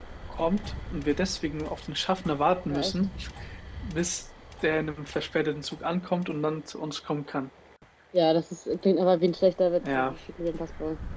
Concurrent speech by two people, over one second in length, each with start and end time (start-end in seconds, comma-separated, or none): none